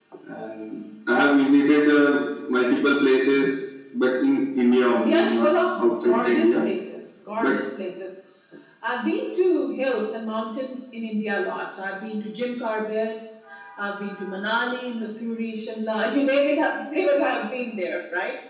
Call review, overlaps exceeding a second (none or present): present